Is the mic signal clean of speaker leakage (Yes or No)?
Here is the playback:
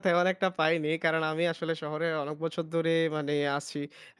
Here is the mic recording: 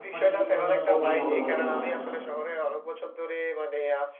No